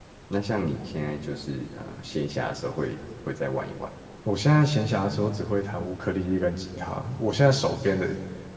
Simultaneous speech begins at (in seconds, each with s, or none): none